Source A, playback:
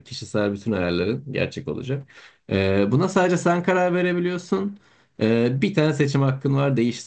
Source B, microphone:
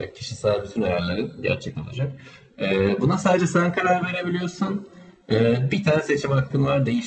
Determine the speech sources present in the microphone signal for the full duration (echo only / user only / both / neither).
echo only